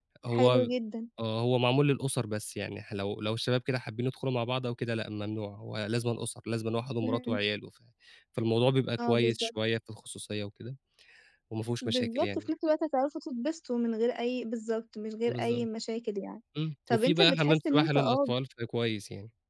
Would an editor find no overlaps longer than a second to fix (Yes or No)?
No